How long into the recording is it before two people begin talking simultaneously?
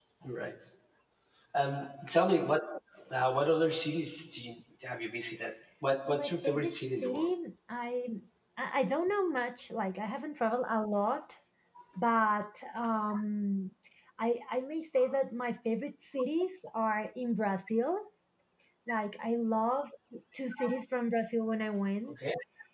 6 s

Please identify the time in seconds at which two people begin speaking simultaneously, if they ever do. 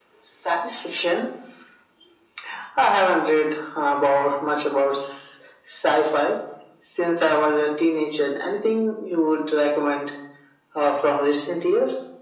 none

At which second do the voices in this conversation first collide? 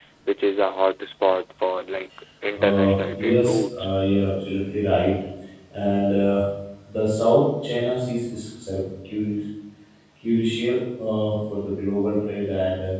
3 s

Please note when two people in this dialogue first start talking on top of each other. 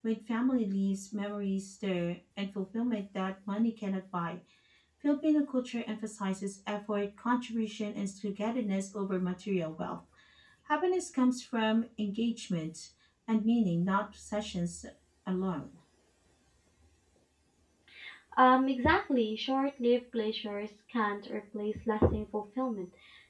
none

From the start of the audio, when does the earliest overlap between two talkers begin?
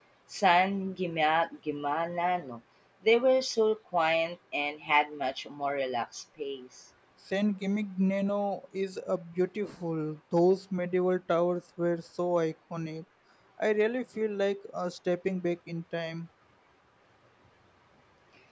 none

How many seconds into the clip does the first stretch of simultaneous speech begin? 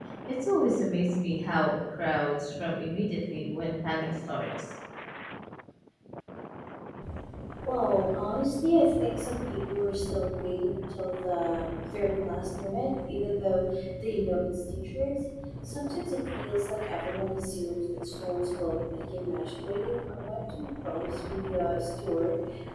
none

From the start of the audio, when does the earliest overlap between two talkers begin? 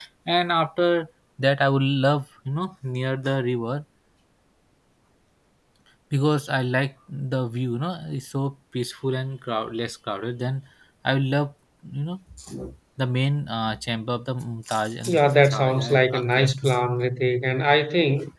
15 s

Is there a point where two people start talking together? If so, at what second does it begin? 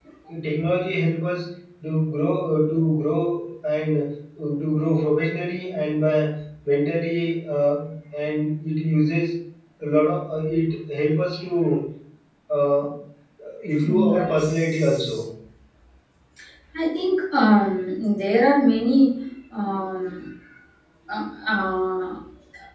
14 s

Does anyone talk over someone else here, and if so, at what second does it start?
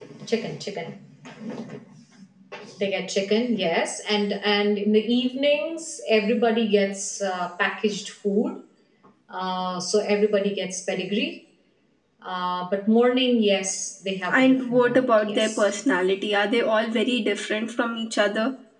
14 s

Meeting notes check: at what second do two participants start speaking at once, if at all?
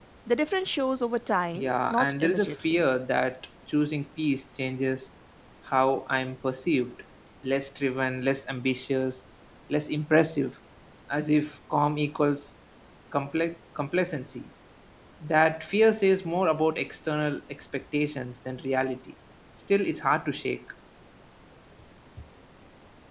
2 s

